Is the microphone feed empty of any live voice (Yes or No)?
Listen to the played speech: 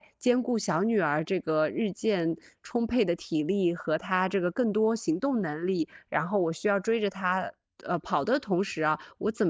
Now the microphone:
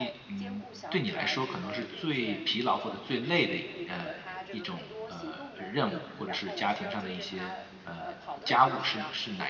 No